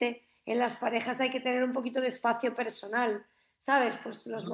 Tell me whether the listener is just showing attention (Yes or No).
Yes